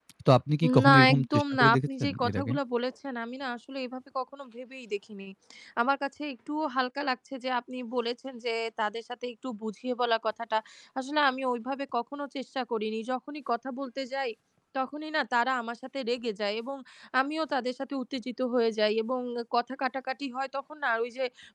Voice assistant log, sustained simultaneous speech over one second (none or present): present